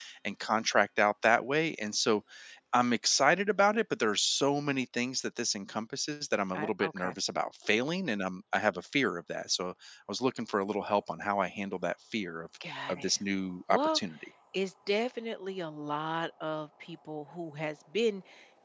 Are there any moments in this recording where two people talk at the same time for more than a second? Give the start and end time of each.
none

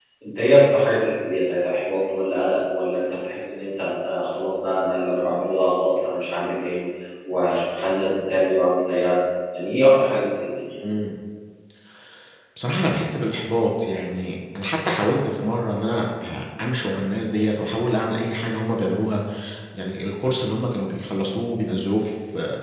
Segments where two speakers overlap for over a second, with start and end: none

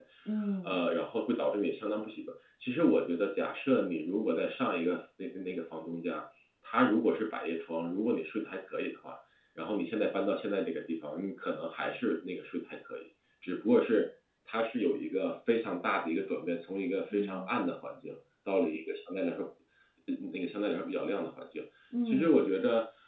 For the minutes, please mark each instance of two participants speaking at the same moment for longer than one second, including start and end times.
none

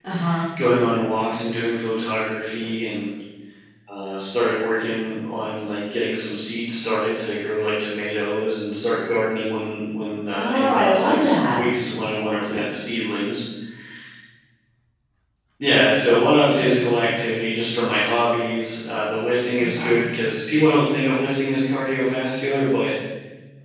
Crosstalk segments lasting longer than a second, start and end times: 10.3-11.6

